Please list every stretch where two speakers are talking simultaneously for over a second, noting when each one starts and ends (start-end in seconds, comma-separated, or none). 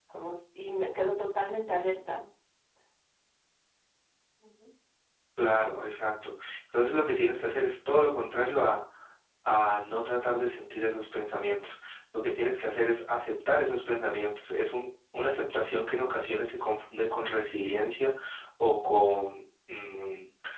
none